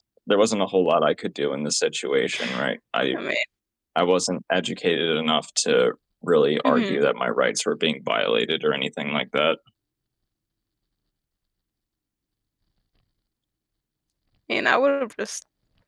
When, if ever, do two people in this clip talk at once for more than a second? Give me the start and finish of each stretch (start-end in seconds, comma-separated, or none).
none